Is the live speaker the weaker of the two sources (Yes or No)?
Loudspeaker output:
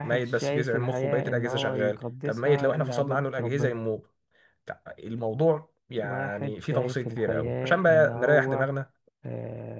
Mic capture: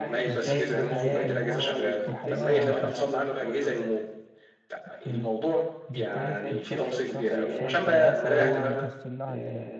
Yes